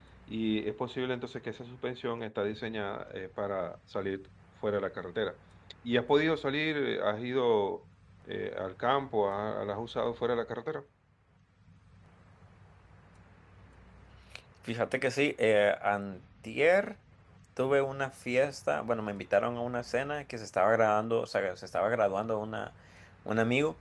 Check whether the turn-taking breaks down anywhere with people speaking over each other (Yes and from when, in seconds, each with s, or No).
No